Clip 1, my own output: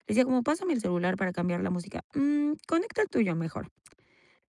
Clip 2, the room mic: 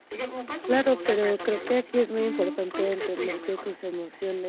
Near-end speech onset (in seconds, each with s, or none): 0.7 s